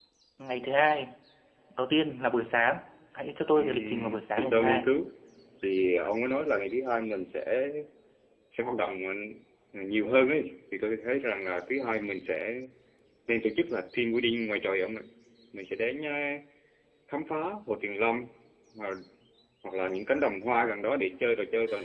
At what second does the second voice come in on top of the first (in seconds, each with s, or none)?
3.5 s